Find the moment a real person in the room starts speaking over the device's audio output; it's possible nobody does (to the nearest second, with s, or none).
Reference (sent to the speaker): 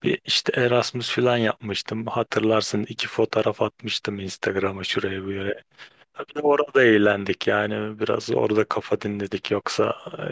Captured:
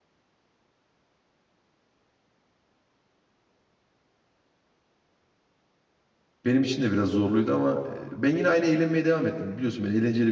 6 s